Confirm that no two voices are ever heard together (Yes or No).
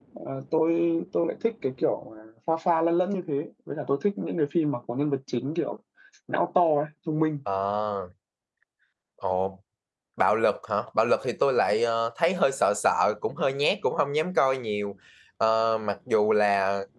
Yes